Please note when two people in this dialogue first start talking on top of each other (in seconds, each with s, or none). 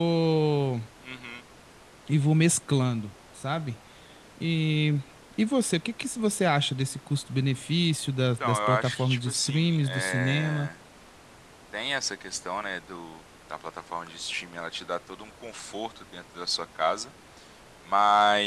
8.4 s